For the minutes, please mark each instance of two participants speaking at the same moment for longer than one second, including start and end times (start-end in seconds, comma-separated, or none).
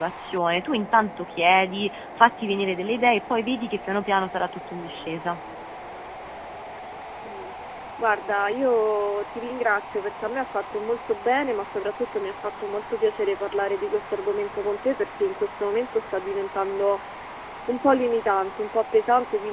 none